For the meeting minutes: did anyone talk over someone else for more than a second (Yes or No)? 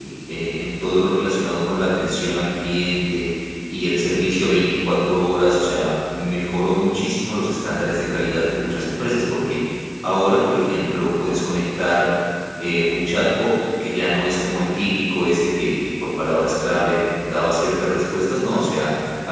No